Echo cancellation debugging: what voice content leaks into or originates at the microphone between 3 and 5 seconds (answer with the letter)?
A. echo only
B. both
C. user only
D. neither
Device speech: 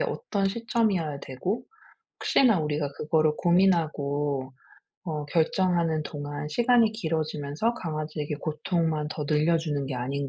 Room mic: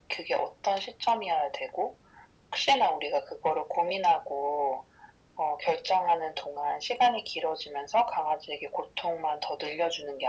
A